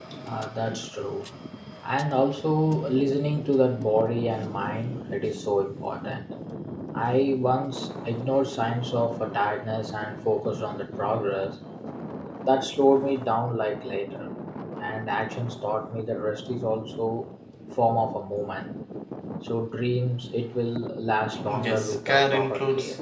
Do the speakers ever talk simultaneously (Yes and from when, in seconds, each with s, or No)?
Yes, from 21.4 s